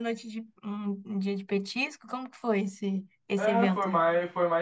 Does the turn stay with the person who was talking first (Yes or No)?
No